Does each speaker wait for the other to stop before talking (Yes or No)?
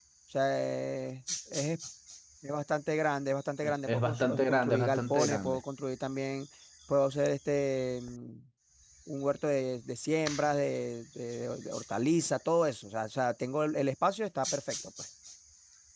No